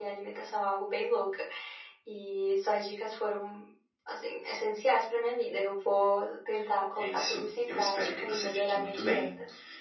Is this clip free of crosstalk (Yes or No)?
No